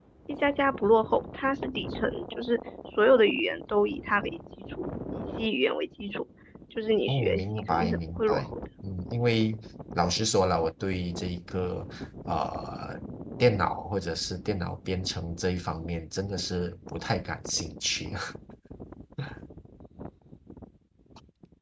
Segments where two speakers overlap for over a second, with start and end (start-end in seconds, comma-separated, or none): 7.1-8.6